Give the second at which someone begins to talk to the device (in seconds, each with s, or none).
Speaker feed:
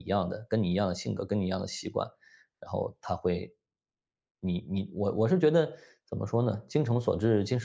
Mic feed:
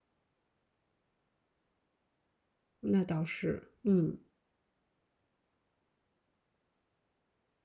2.8 s